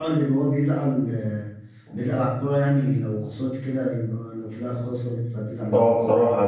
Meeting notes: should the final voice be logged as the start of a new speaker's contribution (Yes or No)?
Yes